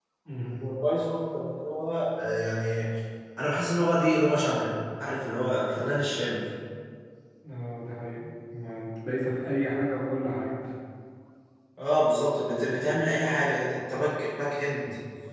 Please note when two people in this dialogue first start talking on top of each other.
none

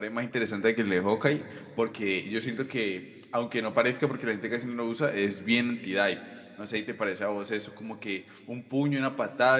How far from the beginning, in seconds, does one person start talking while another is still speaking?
none

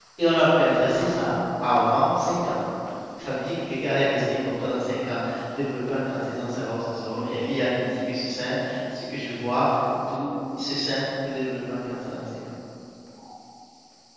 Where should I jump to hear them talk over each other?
none

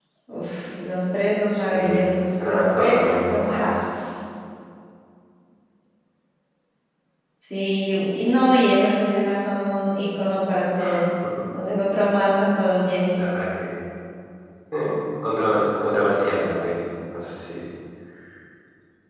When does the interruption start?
1.5 s

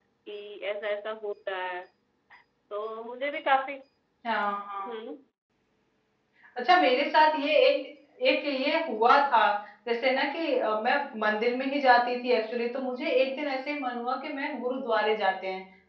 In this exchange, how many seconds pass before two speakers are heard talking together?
none

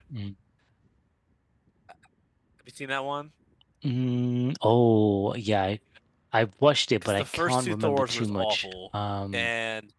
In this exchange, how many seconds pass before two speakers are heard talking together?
7.0 s

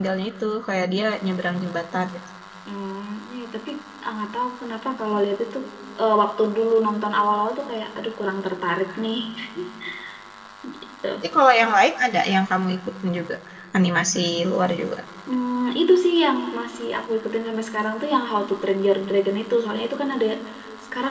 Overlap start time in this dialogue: none

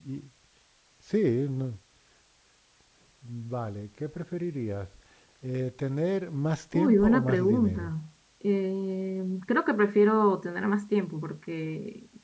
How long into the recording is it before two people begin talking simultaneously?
6.7 s

